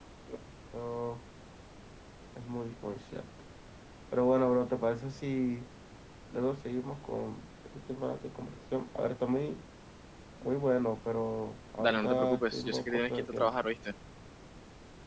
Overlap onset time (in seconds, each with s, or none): 11.8 s